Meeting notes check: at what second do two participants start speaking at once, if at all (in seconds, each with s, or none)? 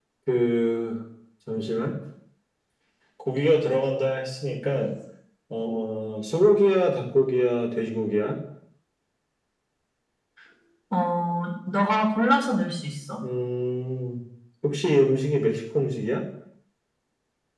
none